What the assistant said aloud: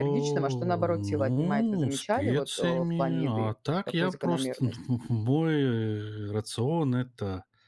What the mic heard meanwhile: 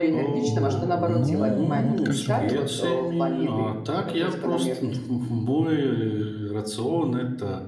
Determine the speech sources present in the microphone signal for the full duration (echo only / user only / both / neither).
both